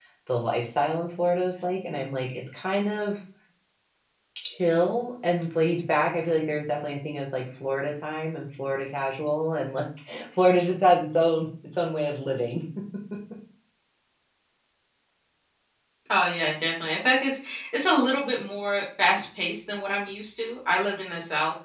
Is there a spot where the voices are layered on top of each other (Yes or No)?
No